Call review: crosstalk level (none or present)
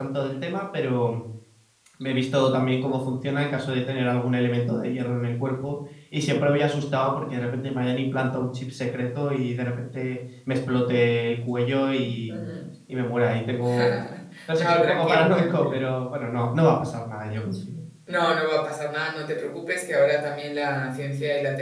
present